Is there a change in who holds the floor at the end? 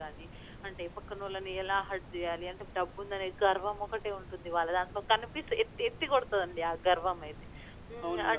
No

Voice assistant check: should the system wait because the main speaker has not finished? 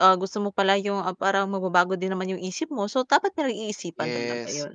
No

